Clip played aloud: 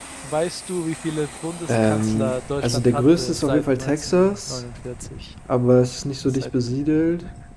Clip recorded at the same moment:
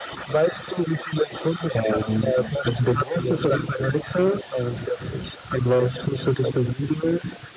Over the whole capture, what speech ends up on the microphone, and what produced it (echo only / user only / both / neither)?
echo only